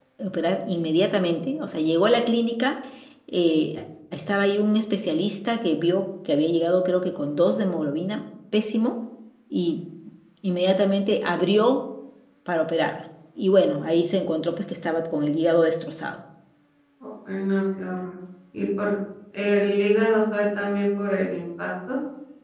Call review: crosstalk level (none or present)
none